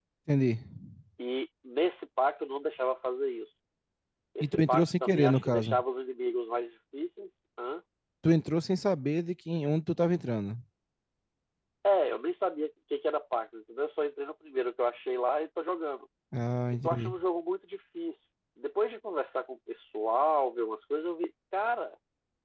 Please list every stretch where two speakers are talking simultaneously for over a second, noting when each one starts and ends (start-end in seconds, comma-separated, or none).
4.4-5.8